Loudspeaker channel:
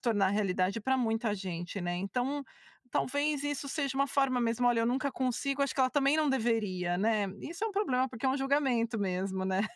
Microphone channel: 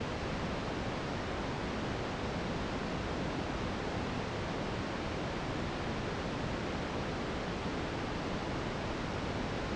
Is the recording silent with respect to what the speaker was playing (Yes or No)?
Yes